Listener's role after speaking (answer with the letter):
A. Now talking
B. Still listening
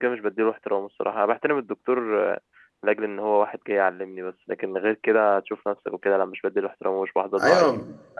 A